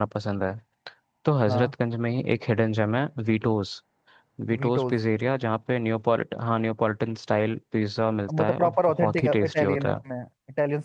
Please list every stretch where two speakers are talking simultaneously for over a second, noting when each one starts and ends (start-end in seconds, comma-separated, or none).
8.4-9.9